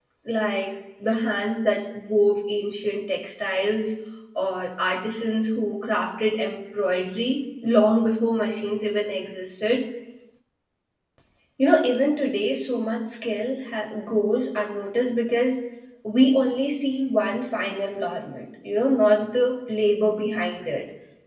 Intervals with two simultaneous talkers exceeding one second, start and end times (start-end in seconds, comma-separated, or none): none